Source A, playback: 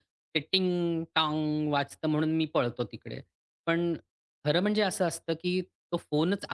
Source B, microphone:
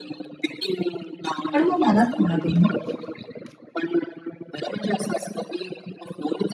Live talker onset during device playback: 1.5 s

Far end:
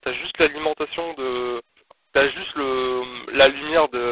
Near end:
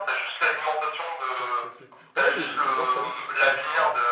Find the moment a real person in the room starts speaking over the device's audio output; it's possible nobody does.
1.3 s

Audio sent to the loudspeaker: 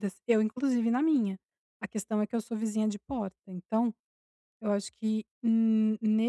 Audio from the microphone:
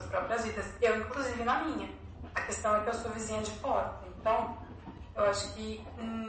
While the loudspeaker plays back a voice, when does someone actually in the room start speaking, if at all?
none

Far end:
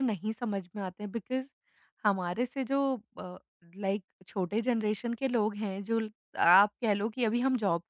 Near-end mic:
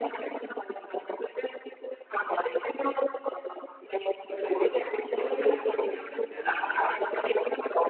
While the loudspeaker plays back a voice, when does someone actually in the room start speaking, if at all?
4.3 s

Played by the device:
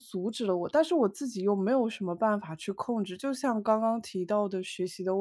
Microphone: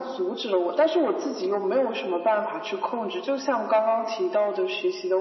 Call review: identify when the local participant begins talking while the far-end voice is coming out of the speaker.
none

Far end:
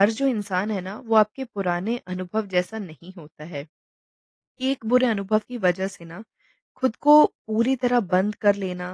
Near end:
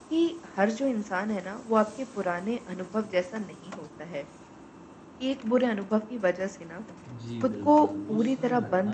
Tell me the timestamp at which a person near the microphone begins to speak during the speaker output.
7.1 s

